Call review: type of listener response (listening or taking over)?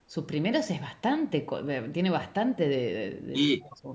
taking over